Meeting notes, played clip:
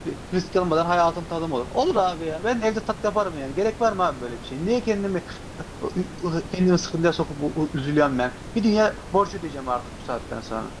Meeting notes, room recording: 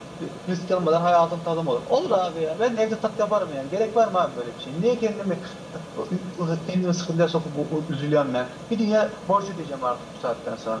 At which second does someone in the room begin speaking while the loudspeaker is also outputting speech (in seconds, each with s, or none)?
none